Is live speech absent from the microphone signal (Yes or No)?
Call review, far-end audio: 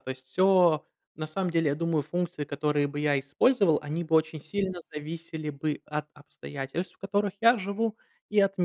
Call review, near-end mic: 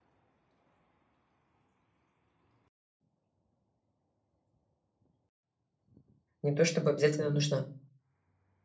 No